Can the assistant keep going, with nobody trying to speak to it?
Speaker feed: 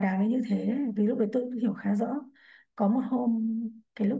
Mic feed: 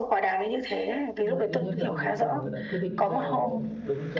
No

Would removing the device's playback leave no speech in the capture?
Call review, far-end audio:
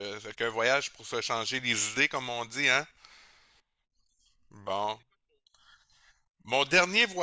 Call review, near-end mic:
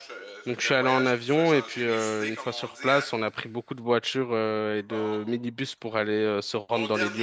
No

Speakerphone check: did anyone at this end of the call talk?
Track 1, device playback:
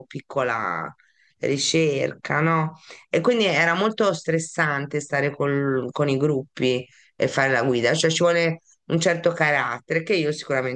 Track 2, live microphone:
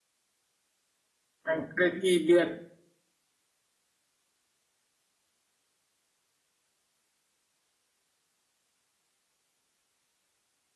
Yes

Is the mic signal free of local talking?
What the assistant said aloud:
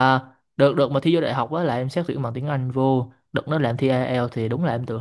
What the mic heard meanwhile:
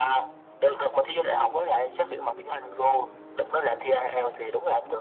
Yes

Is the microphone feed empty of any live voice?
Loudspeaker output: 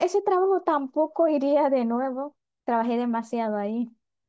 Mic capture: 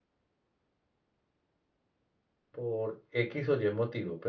No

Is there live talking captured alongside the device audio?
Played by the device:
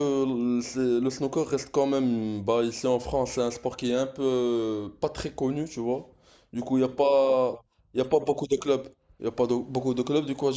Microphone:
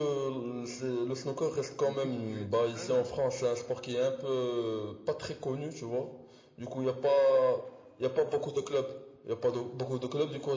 Yes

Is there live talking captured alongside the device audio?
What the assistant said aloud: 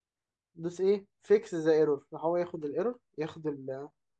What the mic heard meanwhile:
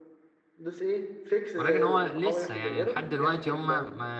Yes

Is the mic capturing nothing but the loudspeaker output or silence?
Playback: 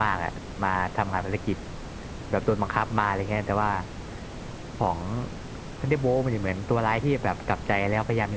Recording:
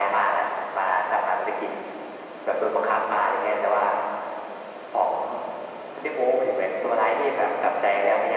Yes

